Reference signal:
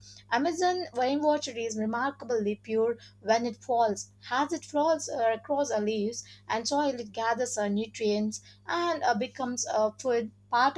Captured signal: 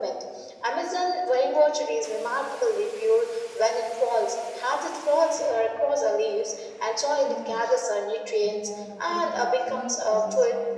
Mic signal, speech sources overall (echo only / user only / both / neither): both